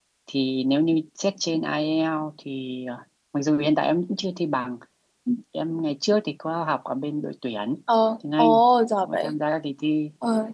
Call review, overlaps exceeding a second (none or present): none